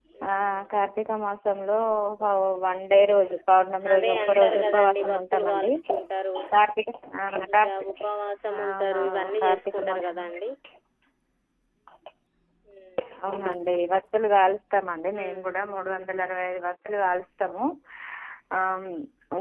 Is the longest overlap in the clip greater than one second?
Yes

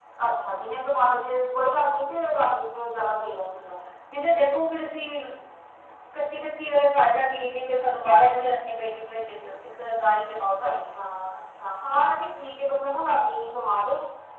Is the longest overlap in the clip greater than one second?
No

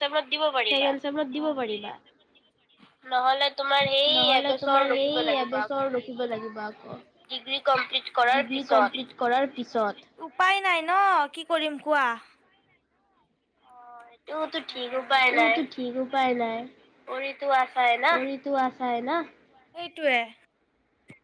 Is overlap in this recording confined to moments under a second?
No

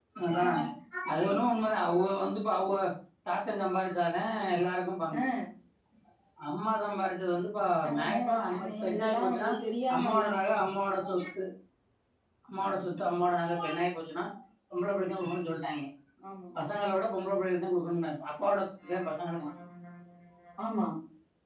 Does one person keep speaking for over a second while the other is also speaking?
Yes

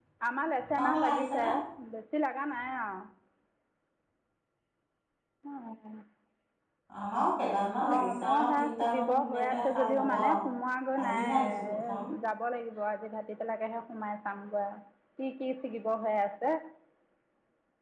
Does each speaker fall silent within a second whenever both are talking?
No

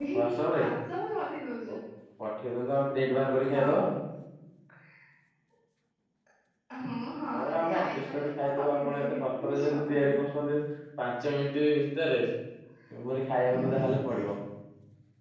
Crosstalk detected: Yes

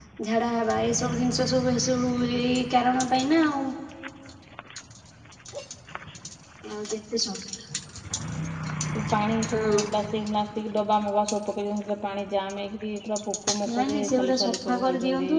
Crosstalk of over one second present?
Yes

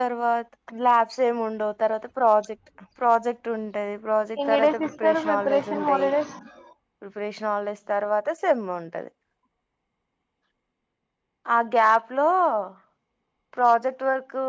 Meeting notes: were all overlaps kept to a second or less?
No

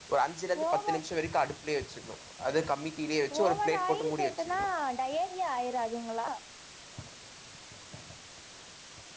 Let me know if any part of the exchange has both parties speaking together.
Yes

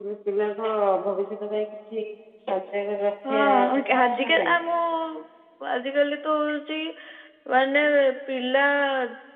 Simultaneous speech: Yes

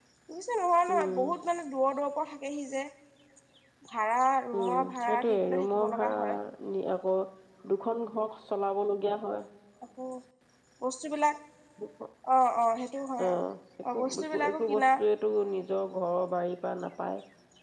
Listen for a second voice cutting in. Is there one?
Yes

